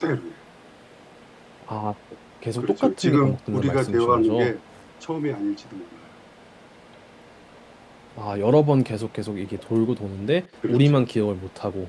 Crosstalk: present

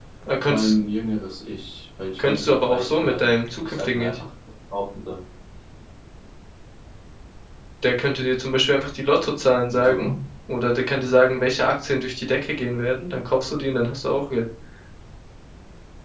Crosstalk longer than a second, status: present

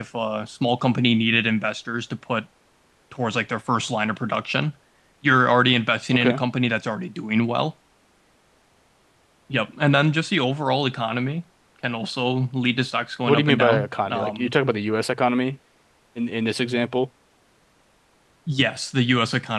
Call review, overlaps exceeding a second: present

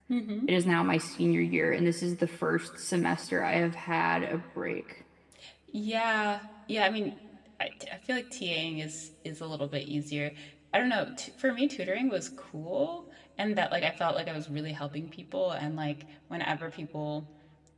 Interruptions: none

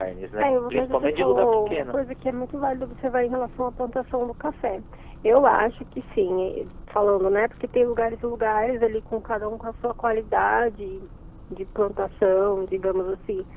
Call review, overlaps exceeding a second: present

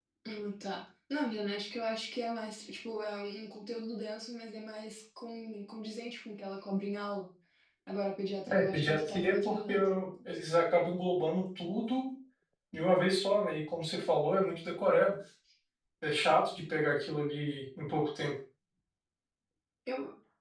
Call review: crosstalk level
present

